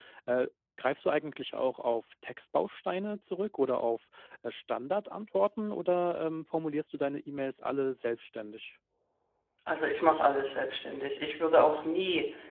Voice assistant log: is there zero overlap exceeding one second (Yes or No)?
Yes